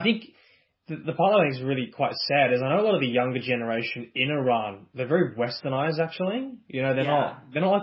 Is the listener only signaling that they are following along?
Yes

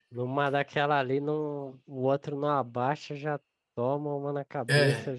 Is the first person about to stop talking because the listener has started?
Yes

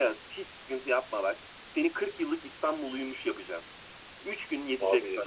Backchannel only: Yes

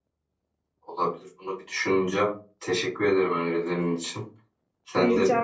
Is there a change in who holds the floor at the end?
No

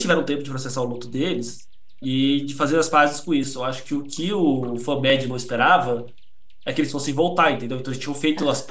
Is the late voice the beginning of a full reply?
No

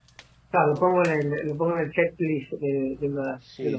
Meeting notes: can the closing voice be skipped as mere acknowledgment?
No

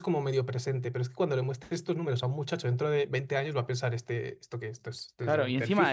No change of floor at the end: No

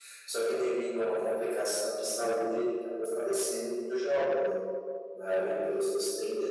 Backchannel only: Yes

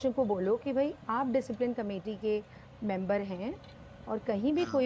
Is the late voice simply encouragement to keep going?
Yes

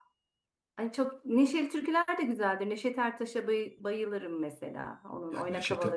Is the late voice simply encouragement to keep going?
No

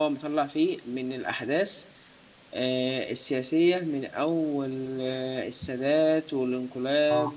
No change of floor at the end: Yes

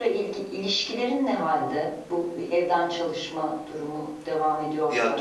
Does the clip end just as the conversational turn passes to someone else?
Yes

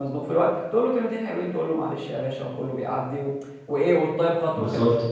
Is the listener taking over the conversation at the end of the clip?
Yes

